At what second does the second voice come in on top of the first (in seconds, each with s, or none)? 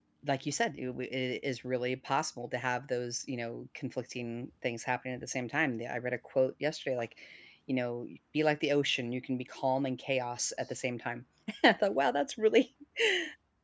none